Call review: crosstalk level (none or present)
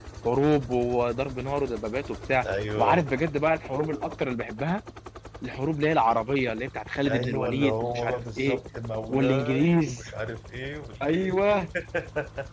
present